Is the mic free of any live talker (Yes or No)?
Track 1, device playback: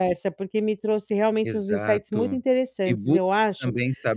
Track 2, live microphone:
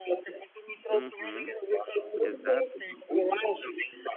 No